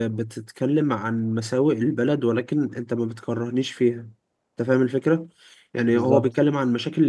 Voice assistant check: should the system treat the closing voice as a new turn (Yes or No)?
No